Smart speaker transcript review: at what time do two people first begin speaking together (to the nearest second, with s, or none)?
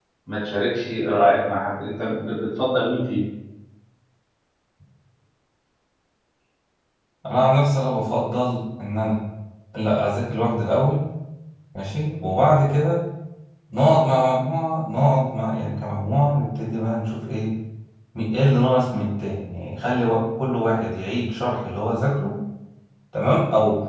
none